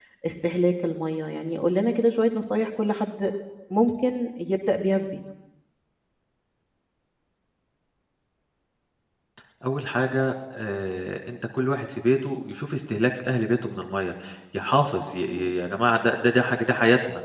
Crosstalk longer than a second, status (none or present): none